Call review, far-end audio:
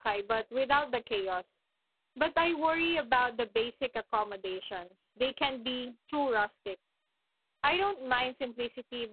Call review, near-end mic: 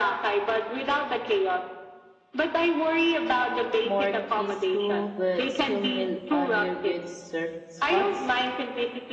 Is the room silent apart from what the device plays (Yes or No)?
No